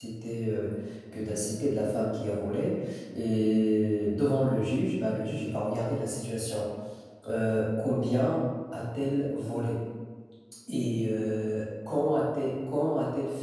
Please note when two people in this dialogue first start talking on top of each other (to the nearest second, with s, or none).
none